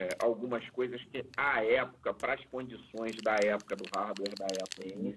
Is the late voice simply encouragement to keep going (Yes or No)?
Yes